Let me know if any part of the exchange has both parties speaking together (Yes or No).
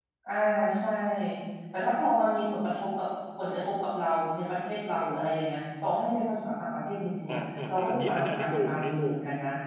Yes